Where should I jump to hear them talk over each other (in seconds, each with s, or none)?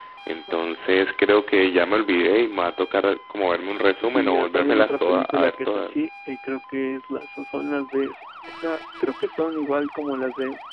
4.0 s